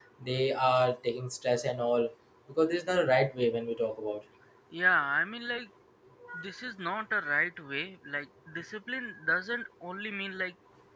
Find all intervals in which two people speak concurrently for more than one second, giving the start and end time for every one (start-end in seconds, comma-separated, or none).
none